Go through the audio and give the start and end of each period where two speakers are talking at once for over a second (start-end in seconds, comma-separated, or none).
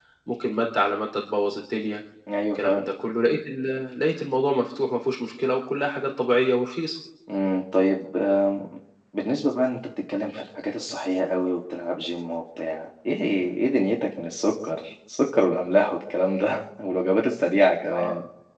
none